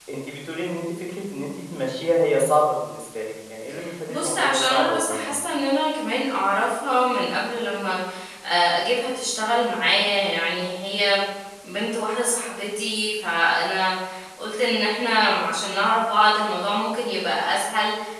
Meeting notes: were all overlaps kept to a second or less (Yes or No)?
No